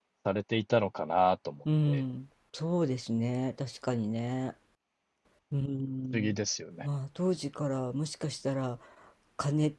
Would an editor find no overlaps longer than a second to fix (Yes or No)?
Yes